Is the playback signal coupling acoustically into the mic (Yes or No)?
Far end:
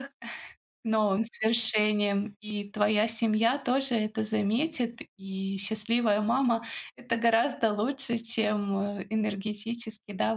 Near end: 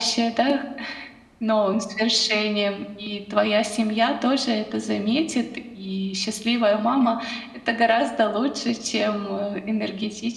Yes